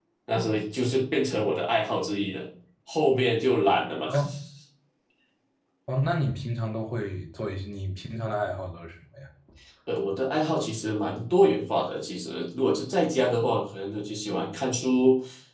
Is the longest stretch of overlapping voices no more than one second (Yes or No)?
Yes